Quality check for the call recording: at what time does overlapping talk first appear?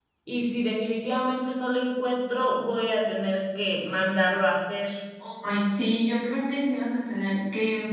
none

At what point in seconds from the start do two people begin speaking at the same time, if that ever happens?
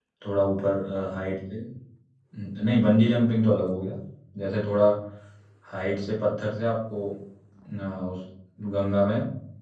none

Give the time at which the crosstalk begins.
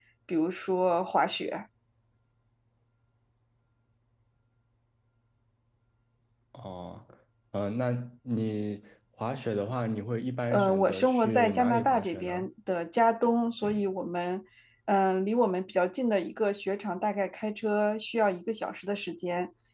11 s

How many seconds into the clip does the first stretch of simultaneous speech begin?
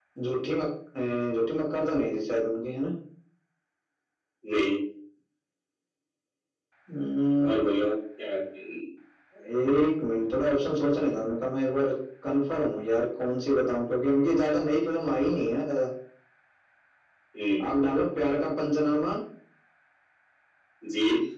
none

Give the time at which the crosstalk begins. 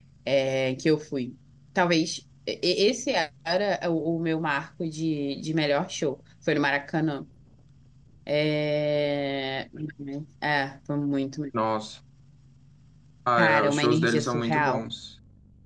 13 s

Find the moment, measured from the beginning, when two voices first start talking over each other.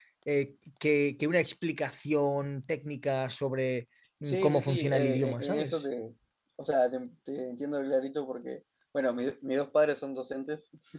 4 s

